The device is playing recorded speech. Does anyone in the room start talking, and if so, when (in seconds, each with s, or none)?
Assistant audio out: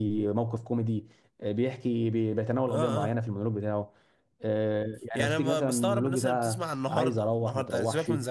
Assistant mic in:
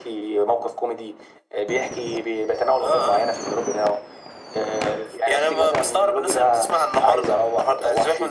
none